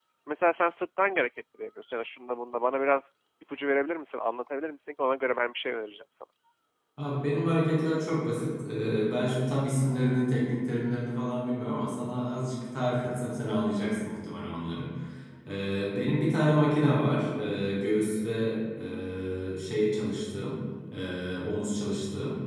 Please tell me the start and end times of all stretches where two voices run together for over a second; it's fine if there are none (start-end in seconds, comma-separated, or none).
none